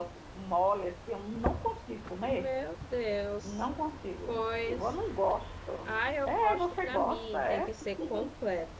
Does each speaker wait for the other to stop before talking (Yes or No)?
No